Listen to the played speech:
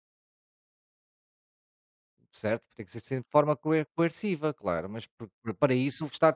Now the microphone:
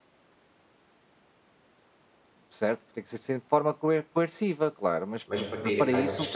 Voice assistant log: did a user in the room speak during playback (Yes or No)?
Yes